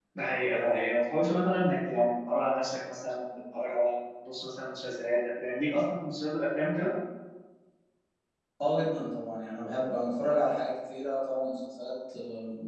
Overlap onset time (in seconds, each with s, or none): none